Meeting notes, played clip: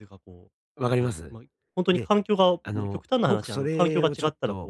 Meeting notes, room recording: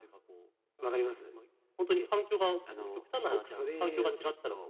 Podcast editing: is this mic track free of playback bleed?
No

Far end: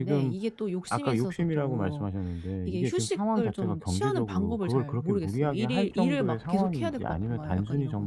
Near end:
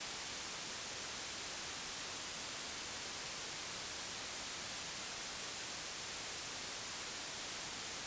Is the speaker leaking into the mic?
No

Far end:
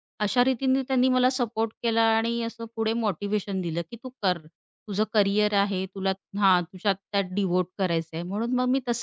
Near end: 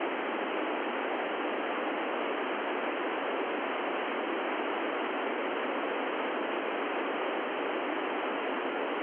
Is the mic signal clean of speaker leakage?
Yes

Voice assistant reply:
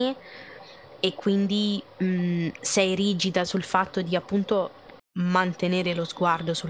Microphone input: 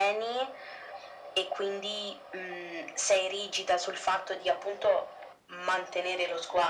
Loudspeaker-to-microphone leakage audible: Yes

